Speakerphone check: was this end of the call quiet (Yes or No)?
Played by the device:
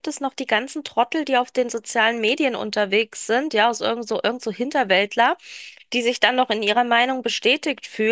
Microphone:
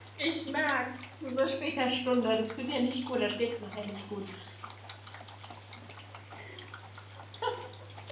No